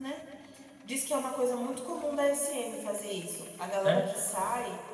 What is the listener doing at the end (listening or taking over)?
listening